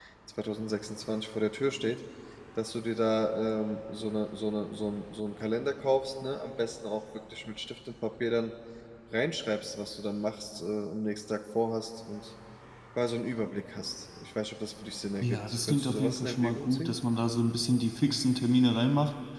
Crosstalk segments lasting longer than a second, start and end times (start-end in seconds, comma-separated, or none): 15.2-17.0